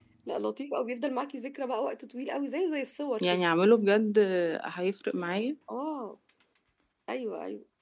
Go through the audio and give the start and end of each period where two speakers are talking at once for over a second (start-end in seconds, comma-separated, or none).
none